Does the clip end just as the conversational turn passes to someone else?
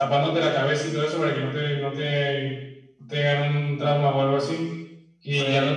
No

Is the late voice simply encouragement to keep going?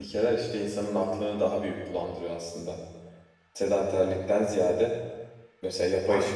Yes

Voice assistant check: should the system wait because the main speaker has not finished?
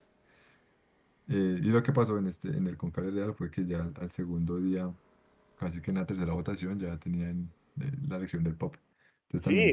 No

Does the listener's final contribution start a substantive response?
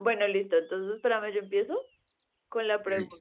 No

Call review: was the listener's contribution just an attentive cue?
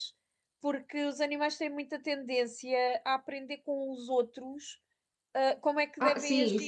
No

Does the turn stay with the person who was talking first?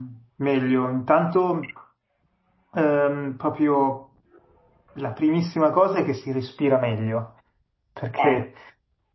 Yes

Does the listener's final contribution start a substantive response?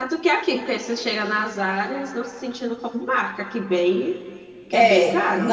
Yes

